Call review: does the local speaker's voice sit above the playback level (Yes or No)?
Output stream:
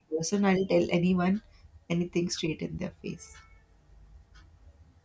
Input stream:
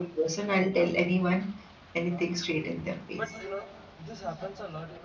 No